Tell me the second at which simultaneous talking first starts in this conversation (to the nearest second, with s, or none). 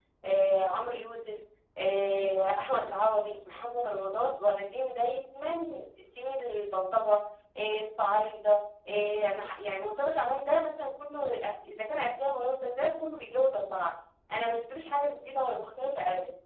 none